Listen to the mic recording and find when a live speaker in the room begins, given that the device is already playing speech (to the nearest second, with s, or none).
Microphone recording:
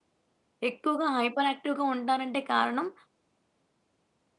1 s